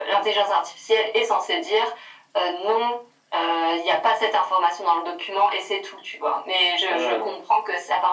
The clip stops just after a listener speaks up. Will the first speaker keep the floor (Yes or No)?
Yes